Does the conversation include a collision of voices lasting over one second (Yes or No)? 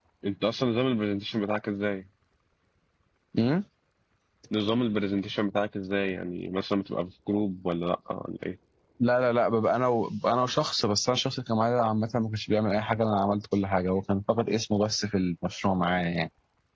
No